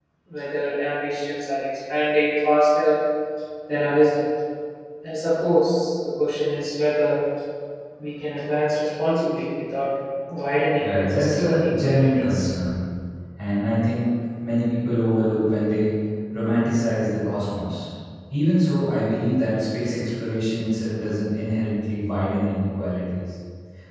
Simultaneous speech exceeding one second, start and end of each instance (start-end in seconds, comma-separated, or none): 10.8-12.5